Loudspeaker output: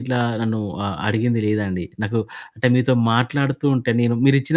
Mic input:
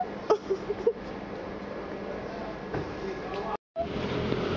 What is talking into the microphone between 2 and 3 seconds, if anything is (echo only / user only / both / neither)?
neither